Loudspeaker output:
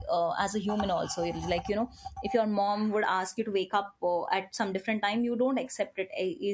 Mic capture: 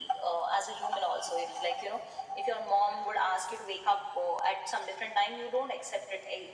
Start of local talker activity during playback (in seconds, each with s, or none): none